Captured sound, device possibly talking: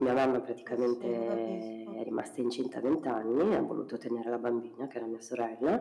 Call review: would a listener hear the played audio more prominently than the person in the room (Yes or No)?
Yes